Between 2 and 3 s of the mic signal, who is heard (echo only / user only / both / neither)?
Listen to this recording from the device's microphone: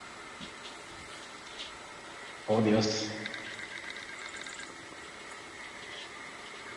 user only